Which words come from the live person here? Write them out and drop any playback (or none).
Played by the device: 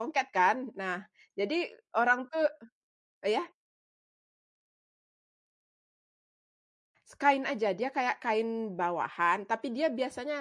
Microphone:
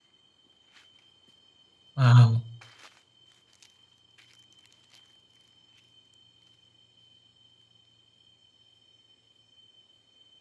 Wow.